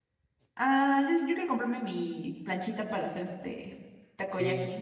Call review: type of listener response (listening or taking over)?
taking over